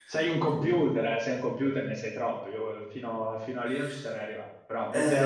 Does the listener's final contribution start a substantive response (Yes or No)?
Yes